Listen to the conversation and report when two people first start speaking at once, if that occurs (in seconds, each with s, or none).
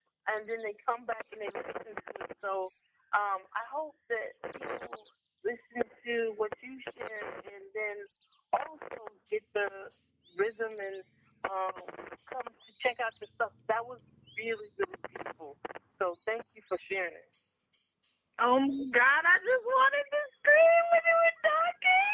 none